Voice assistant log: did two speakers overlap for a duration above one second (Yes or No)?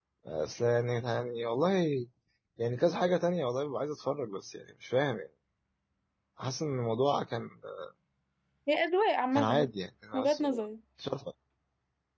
No